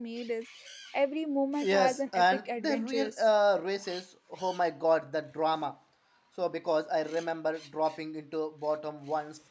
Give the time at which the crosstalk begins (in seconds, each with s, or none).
1.6 s